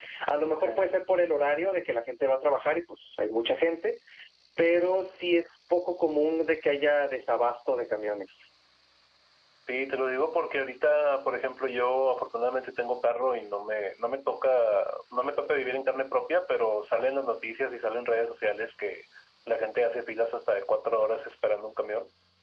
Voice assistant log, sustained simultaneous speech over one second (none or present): none